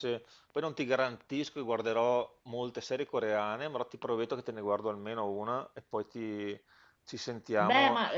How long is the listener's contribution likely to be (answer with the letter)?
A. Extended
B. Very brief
A